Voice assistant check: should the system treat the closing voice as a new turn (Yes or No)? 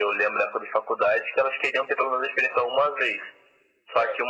No